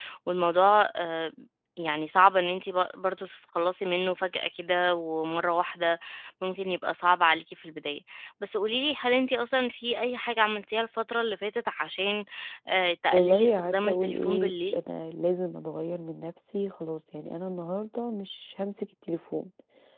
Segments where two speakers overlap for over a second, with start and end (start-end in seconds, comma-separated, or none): 13.1-14.8